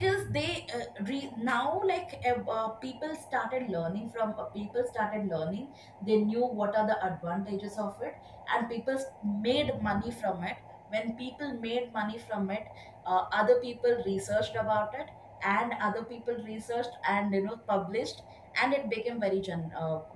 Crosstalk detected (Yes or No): No